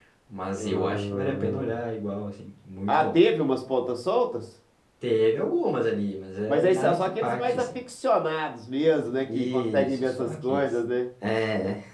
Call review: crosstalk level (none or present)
present